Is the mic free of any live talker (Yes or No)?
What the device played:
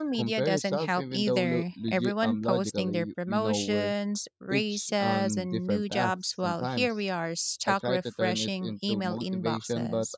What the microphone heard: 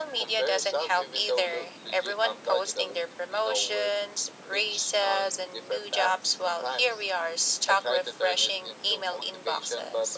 Yes